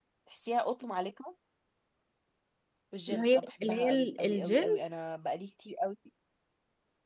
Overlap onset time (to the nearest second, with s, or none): 3 s